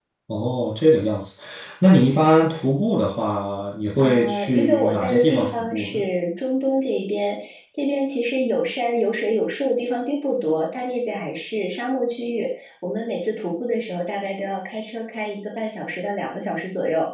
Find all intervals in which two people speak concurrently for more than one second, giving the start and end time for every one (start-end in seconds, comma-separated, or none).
4.0-6.0